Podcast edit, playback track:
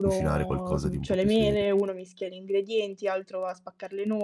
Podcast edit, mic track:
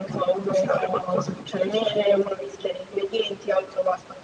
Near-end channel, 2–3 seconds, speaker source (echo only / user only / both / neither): echo only